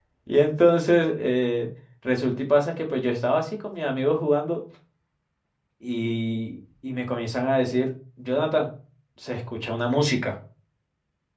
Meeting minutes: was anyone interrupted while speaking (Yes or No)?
No